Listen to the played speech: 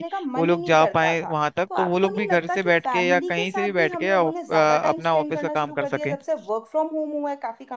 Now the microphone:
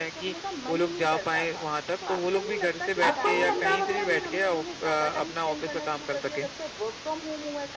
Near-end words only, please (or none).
आपको नहीं लगता आप अपने